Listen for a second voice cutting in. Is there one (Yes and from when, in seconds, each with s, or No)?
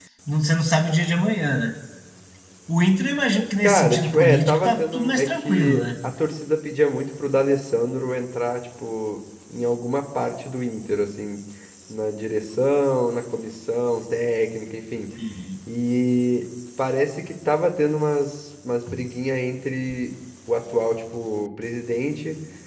Yes, from 3.6 s